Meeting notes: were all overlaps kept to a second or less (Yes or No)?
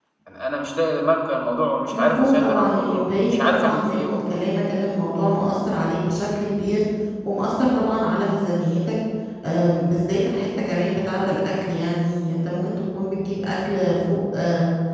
No